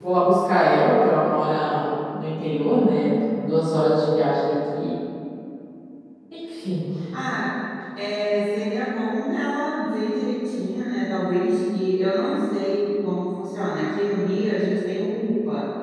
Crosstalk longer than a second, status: none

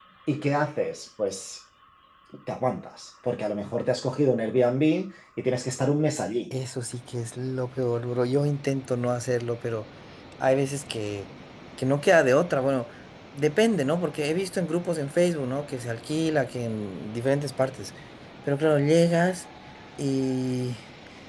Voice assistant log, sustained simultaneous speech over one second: none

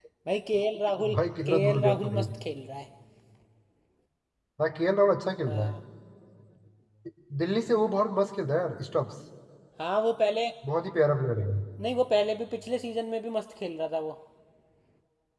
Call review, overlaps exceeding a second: present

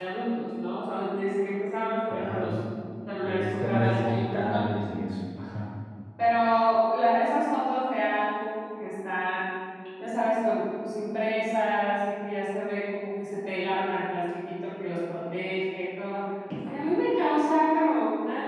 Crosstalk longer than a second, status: present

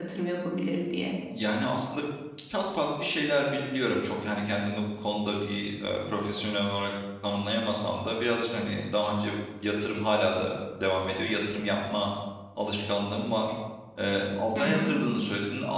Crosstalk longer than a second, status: none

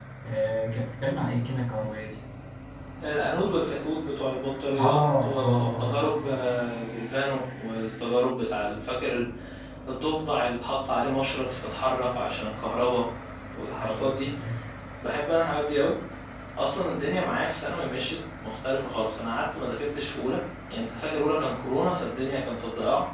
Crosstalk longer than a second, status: present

